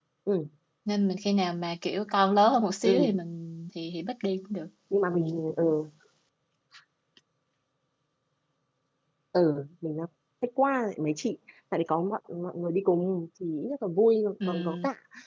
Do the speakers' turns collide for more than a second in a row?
No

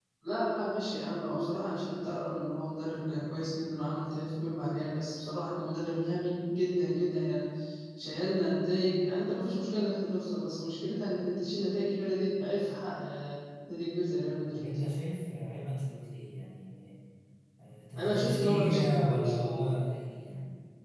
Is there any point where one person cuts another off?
Yes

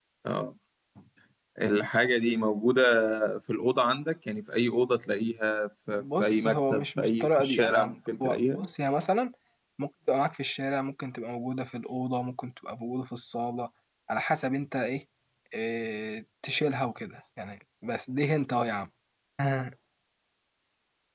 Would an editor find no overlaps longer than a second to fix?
No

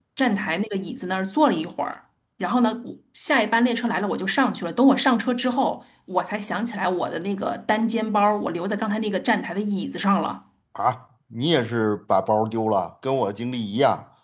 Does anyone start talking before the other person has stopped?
No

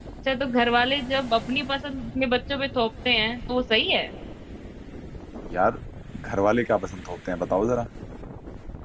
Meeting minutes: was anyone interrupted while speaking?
No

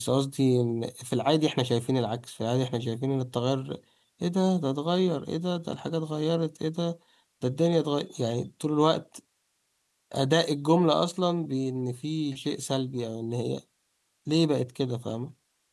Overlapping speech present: No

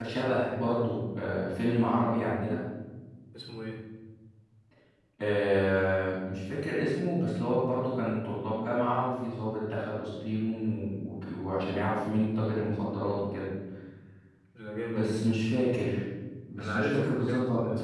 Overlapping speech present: Yes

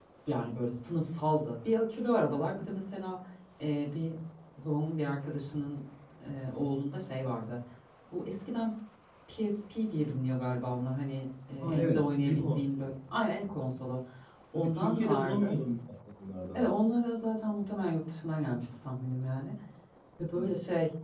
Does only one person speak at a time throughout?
No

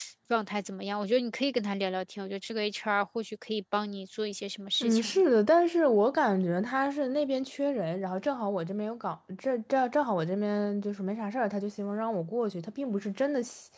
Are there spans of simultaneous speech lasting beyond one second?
No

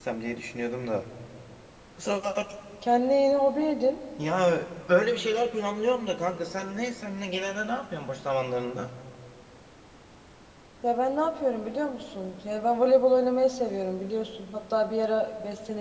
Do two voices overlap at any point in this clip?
No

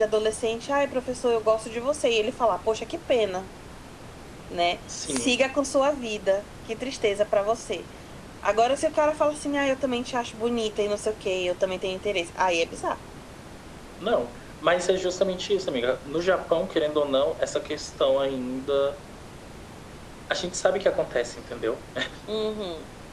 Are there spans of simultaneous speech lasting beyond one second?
No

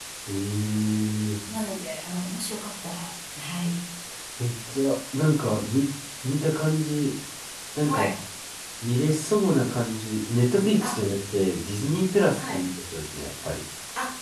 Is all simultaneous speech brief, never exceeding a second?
Yes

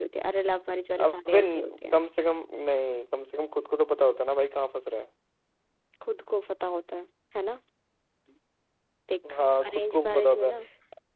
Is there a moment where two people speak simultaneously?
Yes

